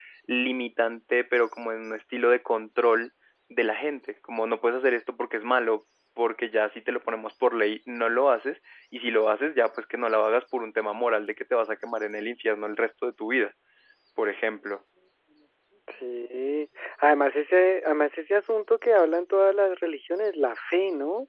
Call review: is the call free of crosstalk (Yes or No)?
Yes